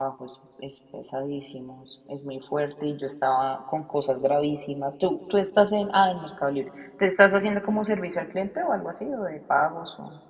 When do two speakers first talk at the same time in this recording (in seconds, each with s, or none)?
none